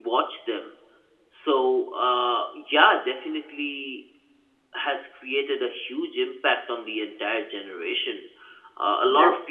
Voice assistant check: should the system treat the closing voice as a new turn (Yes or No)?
No